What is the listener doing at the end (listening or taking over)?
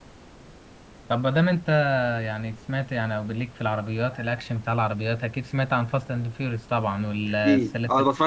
taking over